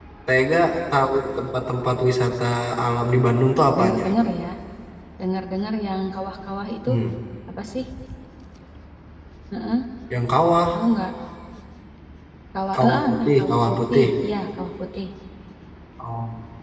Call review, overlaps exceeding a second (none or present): present